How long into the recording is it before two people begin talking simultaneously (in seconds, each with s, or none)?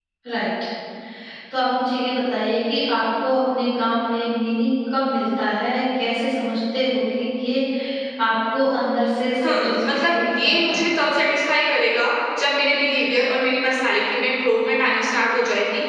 9.4 s